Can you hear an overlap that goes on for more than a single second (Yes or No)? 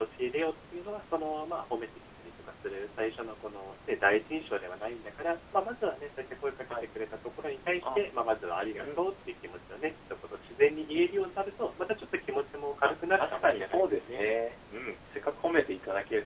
Yes